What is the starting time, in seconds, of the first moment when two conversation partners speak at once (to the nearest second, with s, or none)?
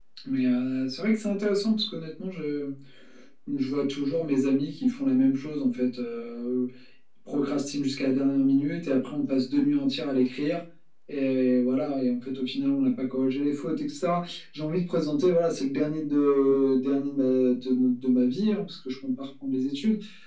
none